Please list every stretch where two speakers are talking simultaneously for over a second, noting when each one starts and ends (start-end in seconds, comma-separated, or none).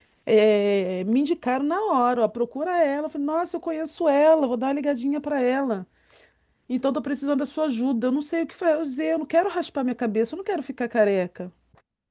none